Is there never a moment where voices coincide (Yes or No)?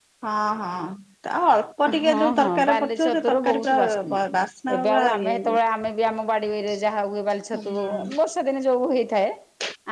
No